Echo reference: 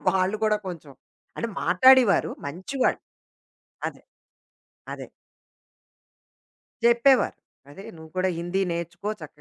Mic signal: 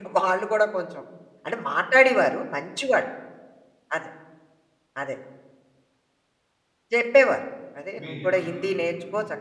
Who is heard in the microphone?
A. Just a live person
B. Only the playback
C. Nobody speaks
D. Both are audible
D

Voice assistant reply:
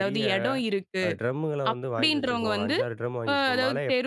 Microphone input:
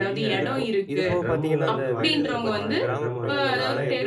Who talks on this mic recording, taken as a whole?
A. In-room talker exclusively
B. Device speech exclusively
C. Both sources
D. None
C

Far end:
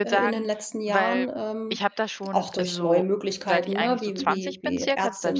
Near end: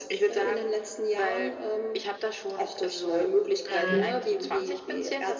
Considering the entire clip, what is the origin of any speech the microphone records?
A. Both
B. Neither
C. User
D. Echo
A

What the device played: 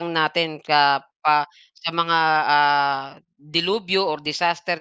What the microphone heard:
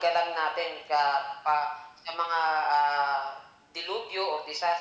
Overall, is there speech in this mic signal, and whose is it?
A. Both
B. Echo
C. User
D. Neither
B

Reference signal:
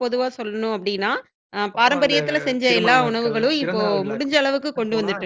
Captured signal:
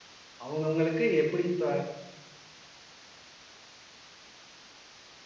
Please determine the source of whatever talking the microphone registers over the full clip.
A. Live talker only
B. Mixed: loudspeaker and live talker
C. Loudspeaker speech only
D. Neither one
A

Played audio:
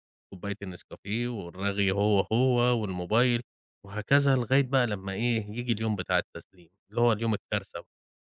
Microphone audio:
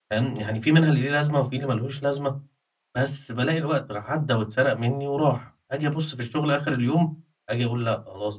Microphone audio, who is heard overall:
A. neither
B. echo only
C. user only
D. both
C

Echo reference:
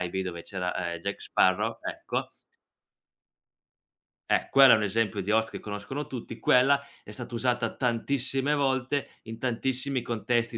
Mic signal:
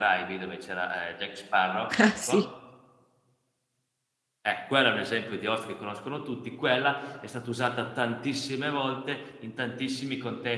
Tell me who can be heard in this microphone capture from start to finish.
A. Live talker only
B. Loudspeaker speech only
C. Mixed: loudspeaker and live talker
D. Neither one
C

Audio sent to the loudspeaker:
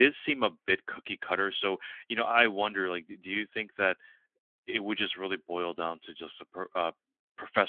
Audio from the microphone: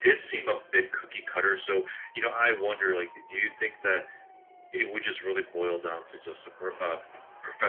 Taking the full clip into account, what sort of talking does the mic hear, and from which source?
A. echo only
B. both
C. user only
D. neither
A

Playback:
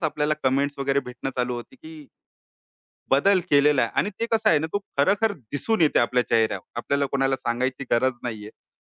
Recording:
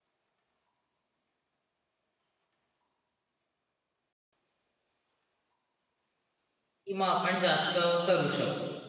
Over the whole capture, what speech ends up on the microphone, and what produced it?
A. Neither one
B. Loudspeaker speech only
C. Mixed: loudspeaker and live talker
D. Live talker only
D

